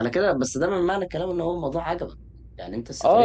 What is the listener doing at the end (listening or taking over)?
taking over